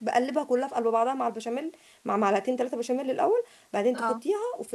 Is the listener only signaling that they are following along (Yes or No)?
Yes